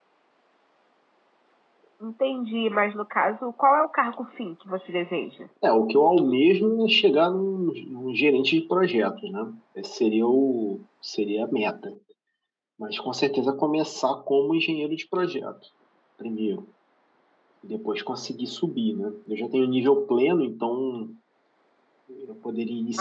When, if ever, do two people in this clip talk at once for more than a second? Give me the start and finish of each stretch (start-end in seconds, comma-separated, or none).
none